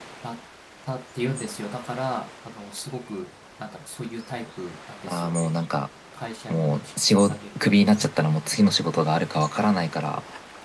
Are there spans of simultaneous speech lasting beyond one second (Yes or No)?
Yes